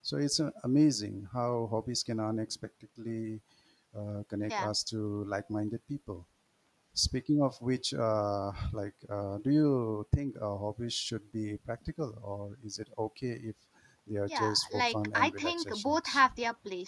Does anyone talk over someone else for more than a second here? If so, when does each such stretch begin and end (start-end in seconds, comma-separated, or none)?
14.3-16.2